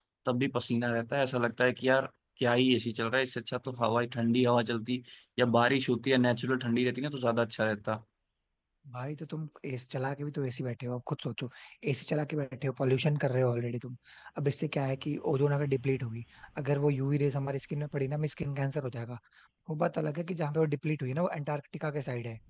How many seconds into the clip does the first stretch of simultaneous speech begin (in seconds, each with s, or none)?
none